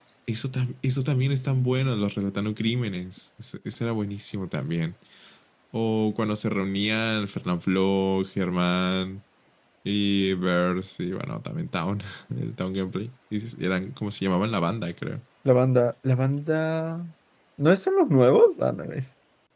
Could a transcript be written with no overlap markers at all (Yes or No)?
Yes